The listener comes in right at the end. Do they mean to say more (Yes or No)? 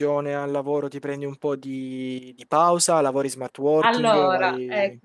Yes